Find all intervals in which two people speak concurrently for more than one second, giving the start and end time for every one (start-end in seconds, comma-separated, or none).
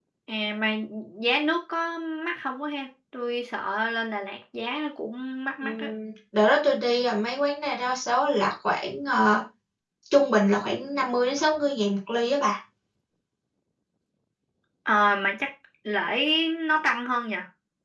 none